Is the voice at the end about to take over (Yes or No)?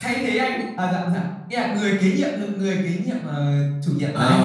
Yes